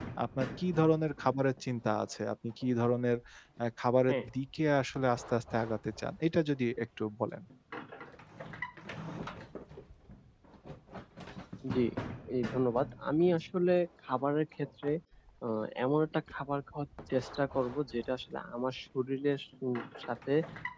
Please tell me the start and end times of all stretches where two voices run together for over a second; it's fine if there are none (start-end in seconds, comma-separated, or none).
none